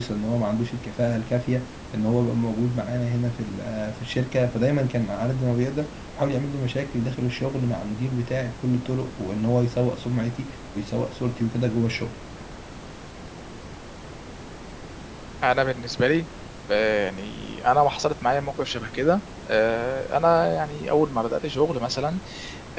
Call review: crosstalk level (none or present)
none